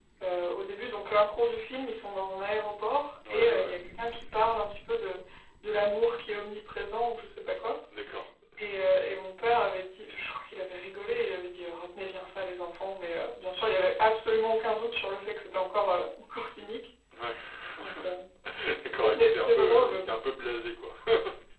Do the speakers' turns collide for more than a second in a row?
Yes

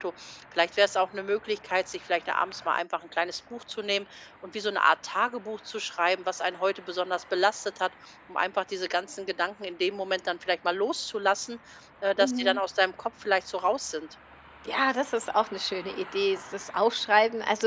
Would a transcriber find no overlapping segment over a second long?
Yes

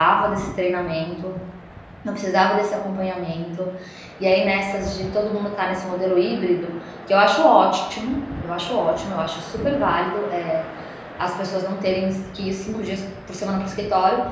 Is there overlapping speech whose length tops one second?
No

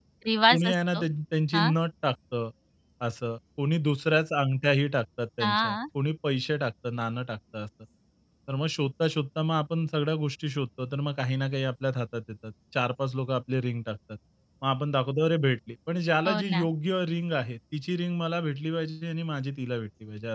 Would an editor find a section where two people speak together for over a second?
No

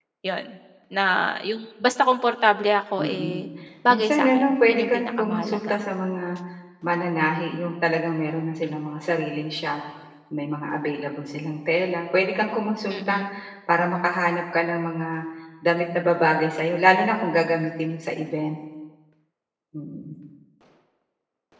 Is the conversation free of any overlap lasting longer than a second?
No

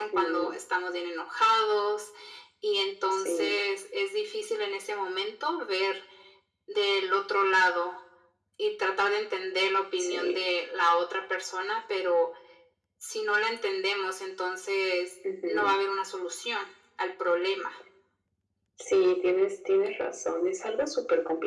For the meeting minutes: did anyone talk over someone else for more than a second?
No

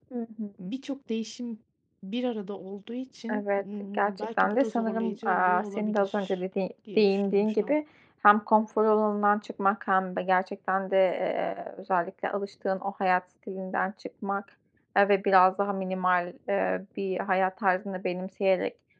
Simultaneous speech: Yes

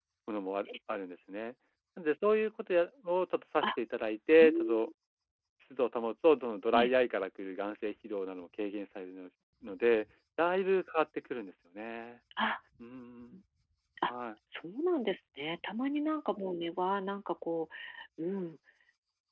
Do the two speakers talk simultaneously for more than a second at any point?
No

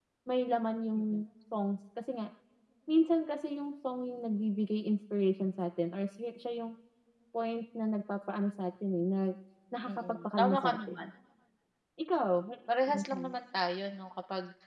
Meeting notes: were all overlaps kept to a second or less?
No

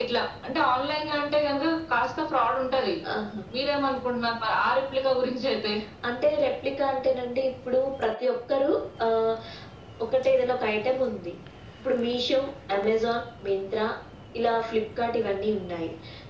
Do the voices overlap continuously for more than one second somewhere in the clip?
No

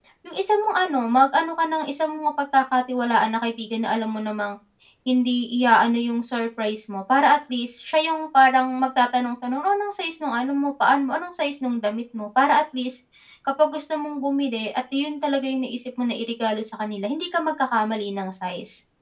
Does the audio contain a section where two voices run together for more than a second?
No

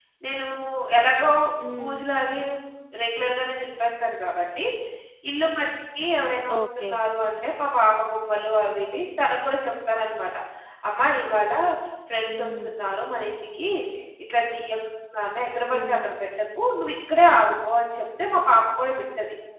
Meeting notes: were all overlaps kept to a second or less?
Yes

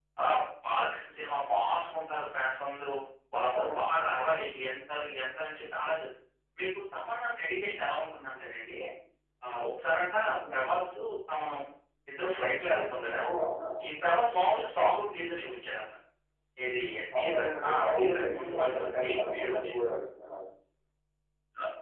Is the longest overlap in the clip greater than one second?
Yes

